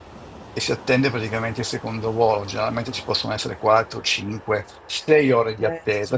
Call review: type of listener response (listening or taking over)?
listening